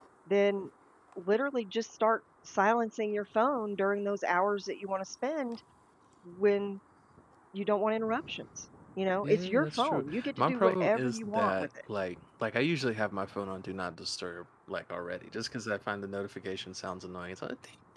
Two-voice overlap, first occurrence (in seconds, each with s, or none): 9.2 s